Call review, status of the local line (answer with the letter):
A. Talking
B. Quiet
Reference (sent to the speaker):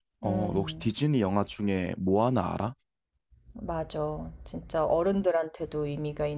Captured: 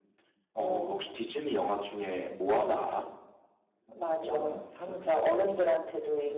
A